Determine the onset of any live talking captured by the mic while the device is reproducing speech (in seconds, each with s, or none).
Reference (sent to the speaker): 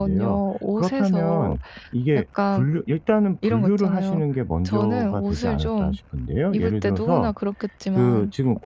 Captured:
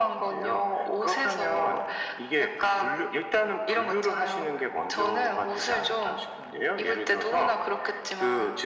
none